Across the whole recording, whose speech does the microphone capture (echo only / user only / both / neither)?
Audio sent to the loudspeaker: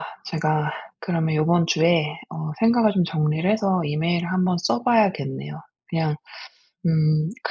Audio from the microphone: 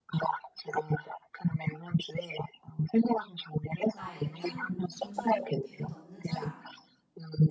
both